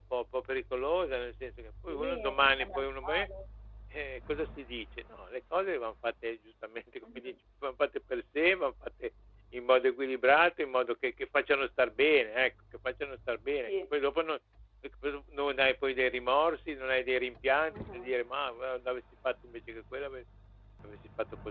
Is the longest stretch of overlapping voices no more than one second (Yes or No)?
No